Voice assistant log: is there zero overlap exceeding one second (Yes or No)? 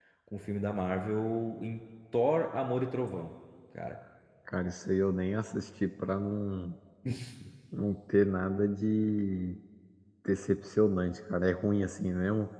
Yes